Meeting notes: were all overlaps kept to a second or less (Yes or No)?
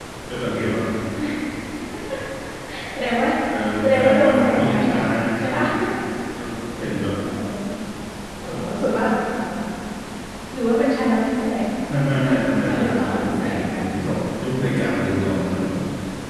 No